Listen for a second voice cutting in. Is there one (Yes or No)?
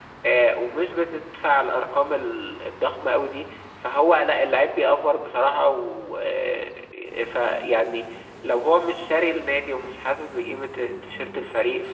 No